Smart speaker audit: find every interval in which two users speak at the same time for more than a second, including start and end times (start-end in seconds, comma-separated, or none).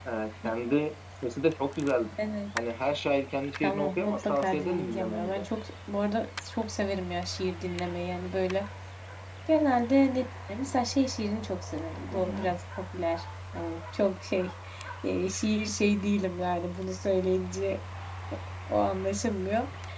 3.6-5.4